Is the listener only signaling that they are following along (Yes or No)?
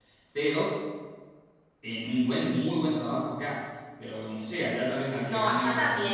No